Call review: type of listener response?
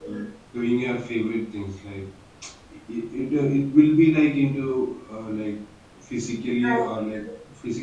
listening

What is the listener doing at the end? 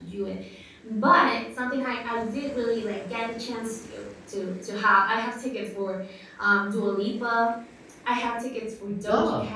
listening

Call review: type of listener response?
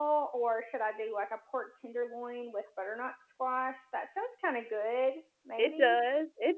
taking over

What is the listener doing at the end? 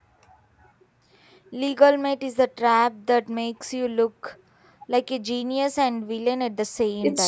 taking over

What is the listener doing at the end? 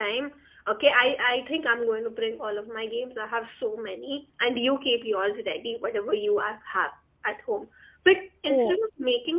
listening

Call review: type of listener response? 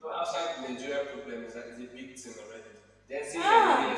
listening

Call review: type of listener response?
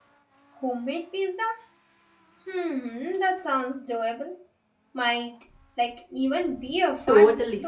taking over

